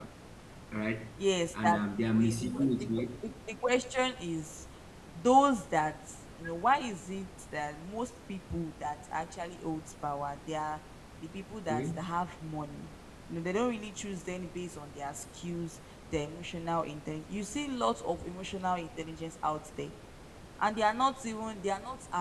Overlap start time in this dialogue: 1.5 s

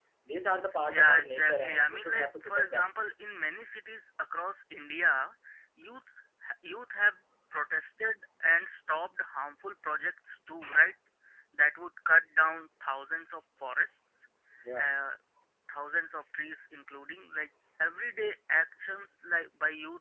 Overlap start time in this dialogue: 0.9 s

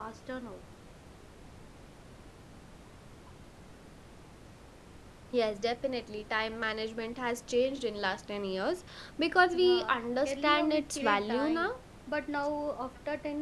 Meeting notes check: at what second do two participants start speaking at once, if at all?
9.5 s

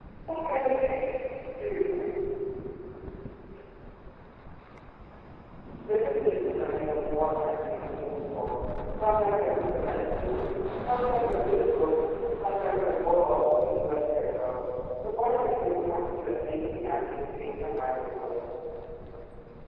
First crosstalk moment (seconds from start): none

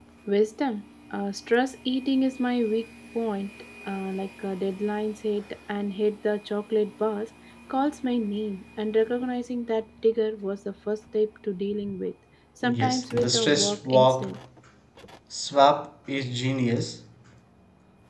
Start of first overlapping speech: 12.6 s

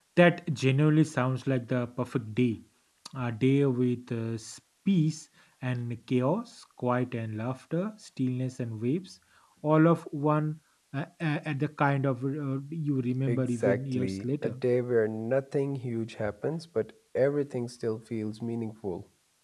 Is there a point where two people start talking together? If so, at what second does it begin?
13.3 s

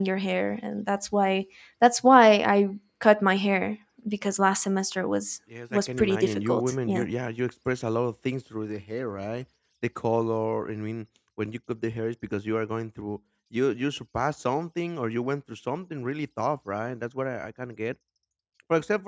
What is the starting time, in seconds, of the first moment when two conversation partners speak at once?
5.7 s

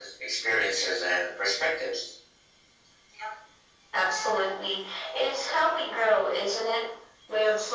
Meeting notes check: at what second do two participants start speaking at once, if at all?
none

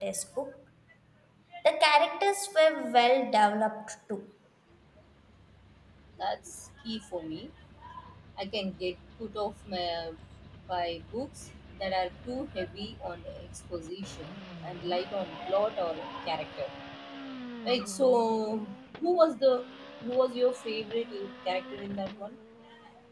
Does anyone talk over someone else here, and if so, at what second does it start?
none

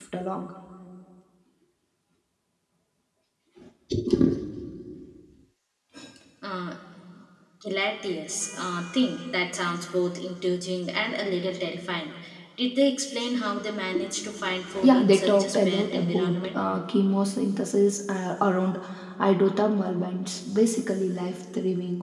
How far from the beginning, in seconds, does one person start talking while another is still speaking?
14.8 s

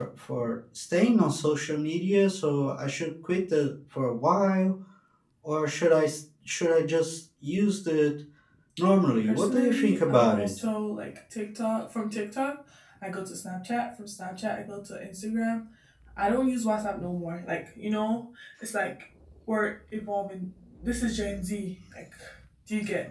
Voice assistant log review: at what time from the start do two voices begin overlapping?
9.2 s

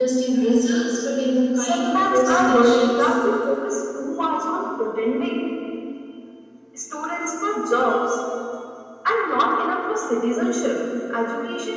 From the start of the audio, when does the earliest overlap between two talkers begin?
1.6 s

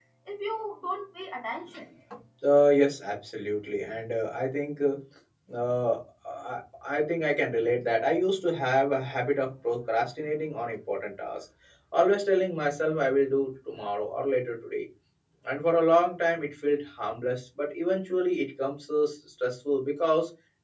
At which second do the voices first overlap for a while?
none

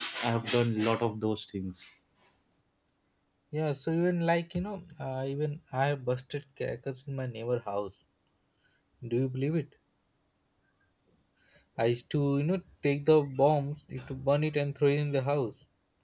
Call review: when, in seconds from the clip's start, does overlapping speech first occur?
none

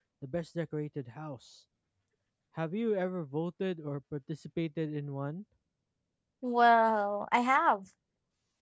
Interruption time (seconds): none

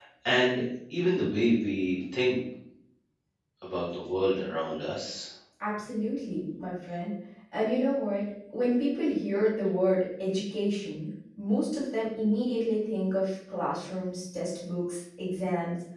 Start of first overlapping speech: none

